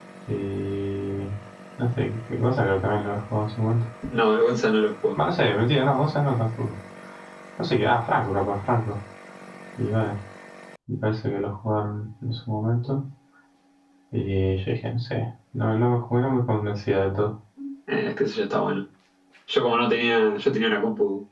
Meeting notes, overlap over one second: none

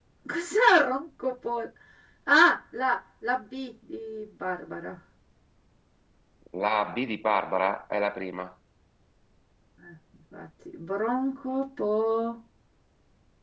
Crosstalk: none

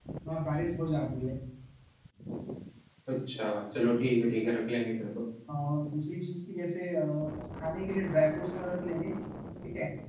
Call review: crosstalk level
none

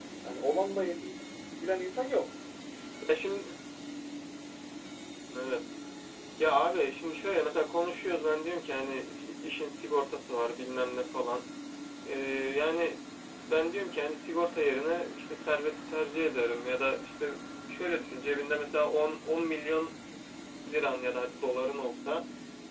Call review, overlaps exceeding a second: none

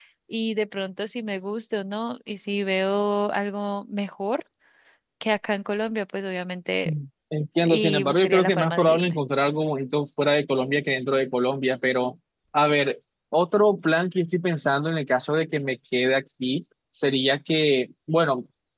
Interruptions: present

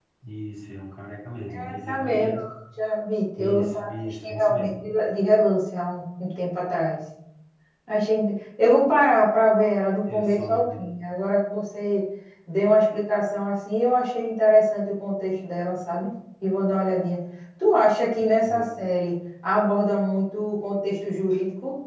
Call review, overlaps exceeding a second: present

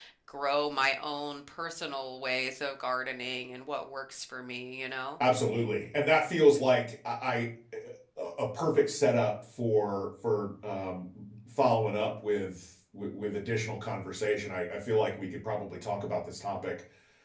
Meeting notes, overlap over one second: none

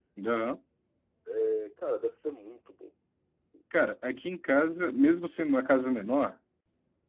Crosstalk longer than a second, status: none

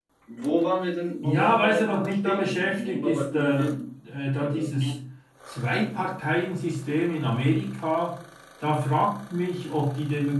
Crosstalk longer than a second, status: present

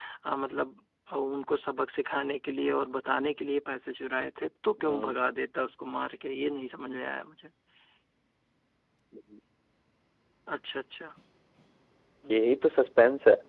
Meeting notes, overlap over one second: none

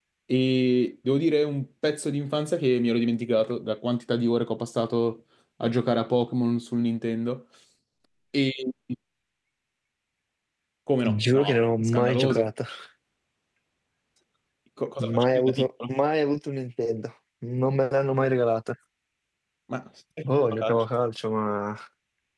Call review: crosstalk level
present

